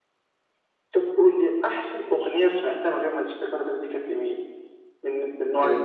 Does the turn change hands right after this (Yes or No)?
Yes